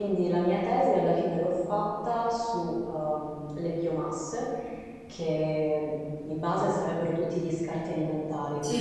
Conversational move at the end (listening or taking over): listening